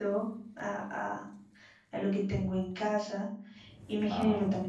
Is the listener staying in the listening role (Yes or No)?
Yes